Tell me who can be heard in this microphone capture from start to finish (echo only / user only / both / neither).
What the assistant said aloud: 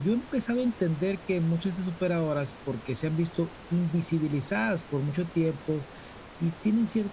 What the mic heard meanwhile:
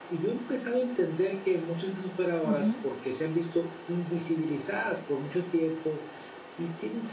both